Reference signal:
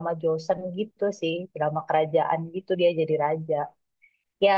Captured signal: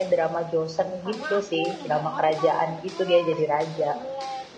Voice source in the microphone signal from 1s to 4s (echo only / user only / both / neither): both